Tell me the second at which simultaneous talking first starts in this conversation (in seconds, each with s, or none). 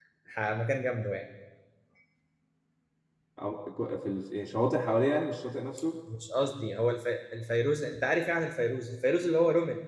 none